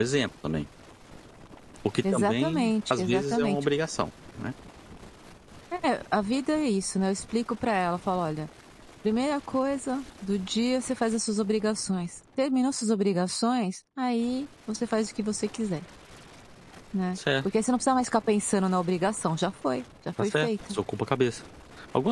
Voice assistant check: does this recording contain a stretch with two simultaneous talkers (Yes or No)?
Yes